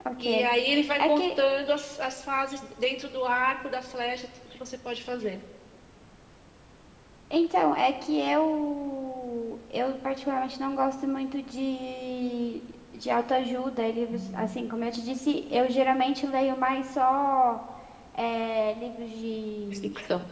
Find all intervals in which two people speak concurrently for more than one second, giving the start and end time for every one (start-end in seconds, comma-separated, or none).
none